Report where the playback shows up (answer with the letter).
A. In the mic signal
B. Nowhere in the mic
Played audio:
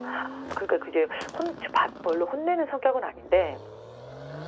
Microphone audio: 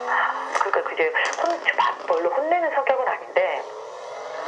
A